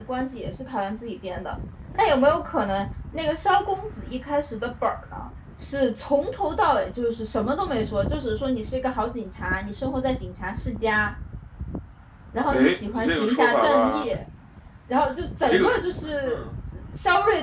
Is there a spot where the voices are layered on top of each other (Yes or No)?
Yes